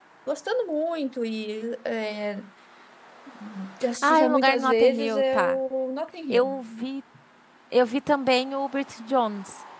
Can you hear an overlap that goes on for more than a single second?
Yes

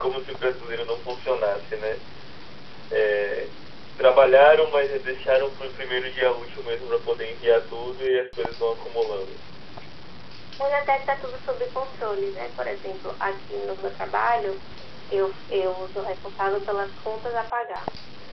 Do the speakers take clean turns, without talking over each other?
Yes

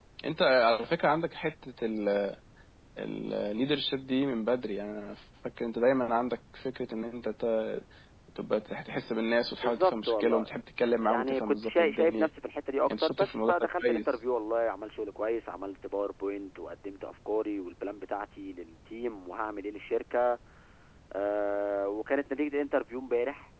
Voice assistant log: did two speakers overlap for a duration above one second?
Yes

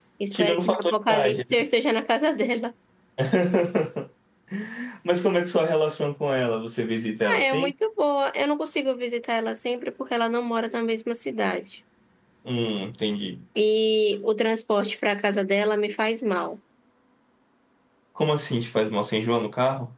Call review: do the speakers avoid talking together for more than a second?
No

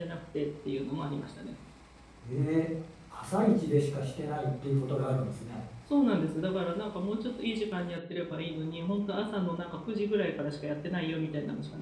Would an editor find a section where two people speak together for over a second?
No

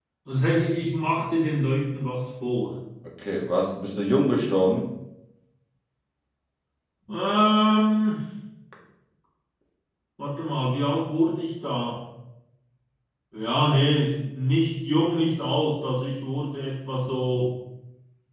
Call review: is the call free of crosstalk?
Yes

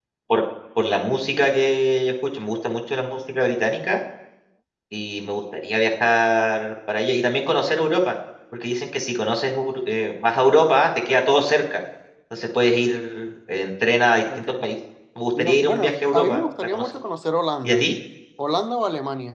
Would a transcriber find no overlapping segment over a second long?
No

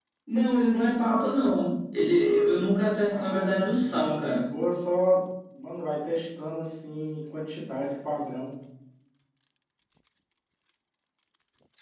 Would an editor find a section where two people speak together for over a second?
Yes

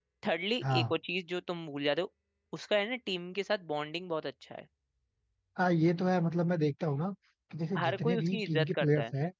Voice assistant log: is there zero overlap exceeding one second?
No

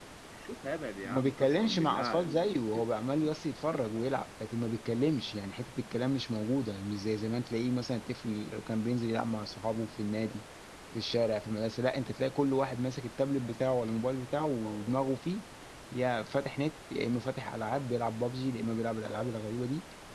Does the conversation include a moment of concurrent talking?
Yes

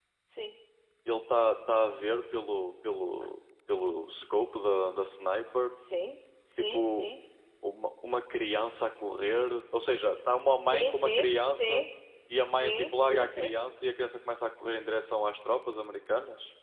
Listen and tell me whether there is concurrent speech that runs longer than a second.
Yes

